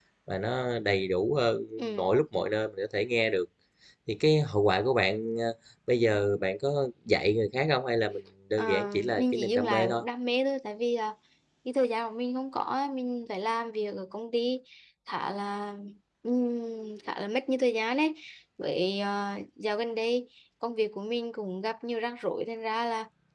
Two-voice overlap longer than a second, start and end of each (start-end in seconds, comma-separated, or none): 8.6-10.0